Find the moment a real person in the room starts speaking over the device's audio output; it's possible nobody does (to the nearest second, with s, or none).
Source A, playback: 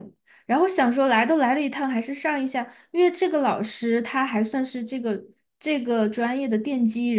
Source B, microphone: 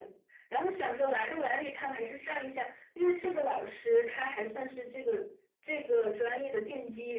none